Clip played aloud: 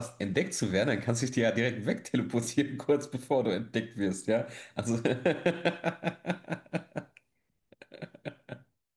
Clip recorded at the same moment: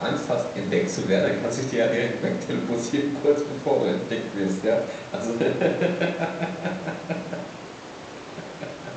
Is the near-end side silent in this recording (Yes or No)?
Yes